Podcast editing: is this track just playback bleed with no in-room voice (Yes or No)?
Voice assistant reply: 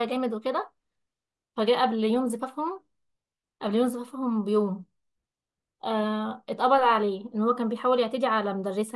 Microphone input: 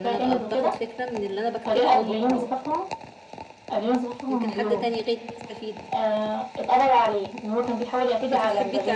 No